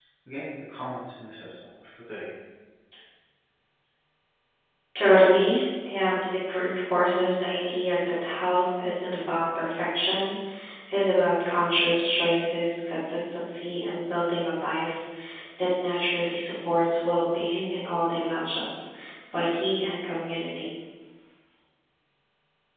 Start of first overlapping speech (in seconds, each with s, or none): none